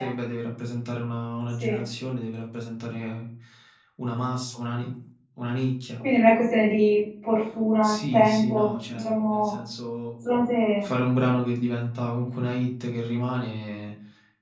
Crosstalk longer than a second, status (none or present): present